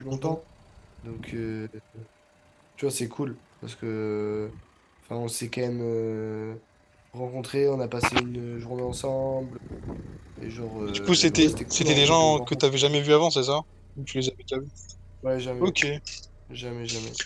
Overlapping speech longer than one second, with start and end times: 10.9-12.8

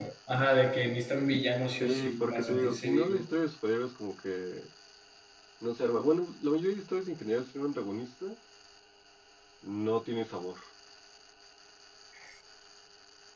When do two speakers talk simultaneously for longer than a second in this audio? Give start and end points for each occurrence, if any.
1.8-3.3

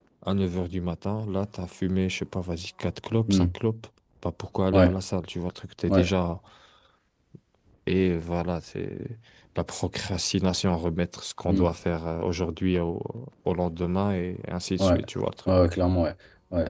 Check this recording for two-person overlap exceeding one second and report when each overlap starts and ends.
none

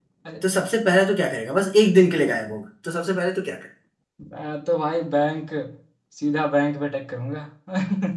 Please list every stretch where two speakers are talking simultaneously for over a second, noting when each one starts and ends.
none

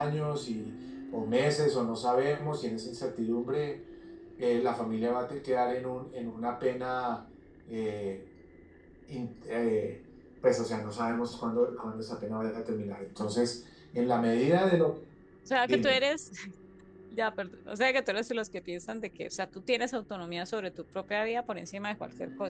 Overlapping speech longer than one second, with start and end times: none

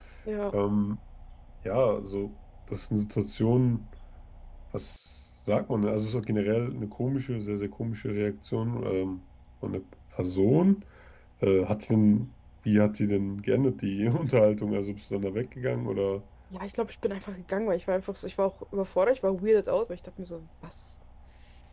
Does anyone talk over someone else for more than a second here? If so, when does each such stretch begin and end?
none

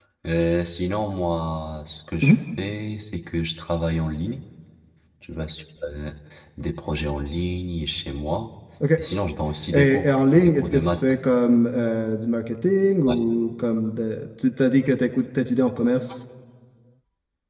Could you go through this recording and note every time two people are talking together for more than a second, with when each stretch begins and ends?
9.7-11.0

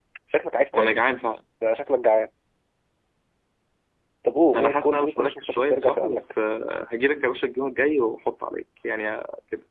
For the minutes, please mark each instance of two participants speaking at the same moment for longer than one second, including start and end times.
4.5-6.4

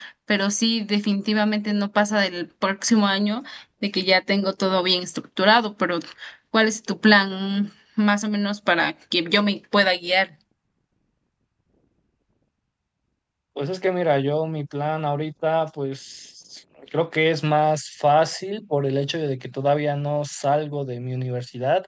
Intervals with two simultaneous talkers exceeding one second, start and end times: none

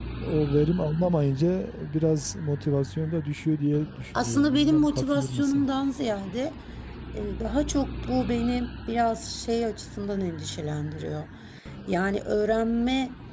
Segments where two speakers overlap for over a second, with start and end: 4.2-5.7

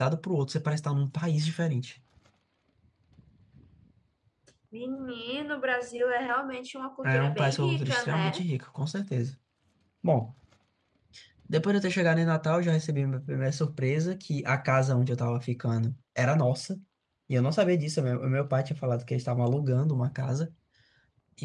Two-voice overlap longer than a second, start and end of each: 7.0-8.4

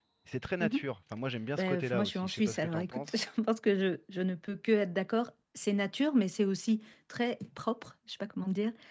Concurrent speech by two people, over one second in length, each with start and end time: 1.6-3.2

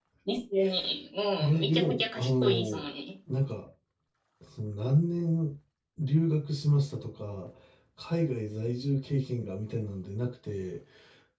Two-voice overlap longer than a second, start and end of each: 1.5-2.9

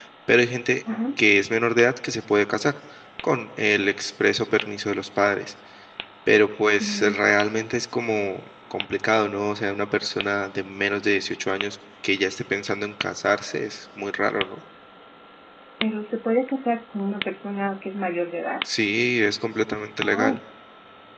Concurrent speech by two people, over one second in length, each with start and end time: none

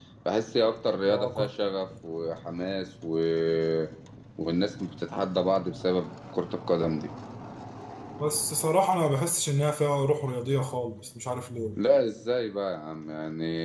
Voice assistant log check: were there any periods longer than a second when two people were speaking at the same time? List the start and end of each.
none

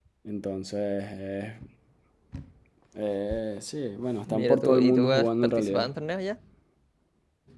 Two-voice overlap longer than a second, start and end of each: 4.3-5.9

